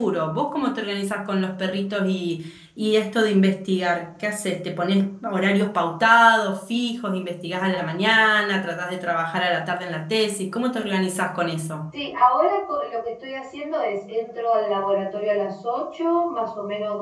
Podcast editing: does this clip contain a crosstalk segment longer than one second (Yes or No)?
No